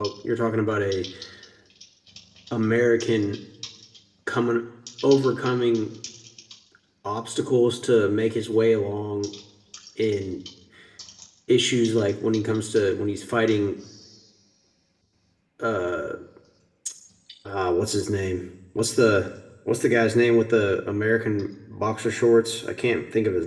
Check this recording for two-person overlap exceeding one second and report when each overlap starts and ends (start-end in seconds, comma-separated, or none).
none